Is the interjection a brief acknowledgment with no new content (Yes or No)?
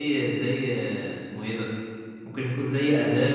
Yes